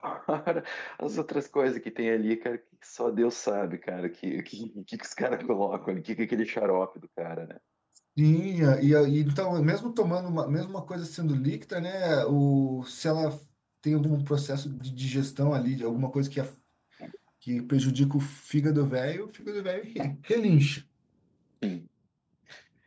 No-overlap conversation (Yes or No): Yes